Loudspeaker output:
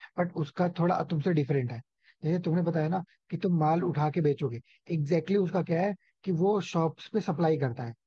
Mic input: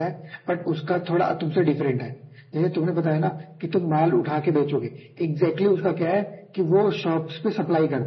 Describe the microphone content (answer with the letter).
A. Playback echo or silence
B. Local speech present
A